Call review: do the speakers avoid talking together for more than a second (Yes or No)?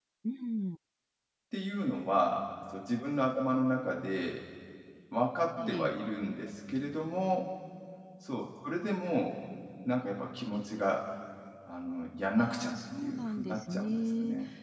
No